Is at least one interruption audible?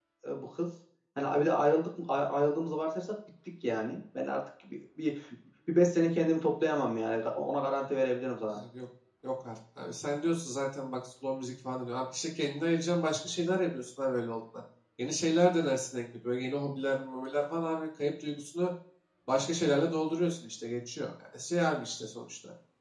No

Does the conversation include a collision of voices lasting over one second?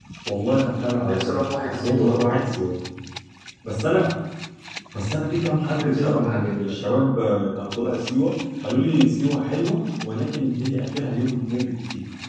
Yes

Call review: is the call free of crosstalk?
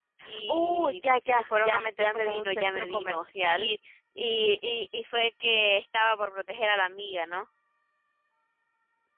No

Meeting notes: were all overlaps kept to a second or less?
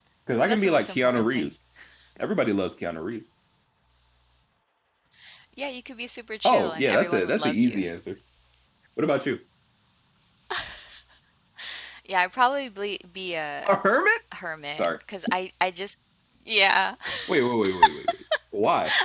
No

